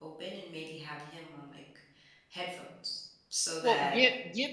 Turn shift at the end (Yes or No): Yes